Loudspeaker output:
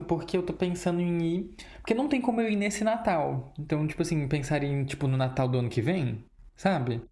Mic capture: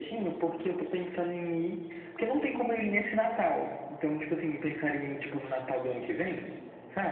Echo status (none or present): present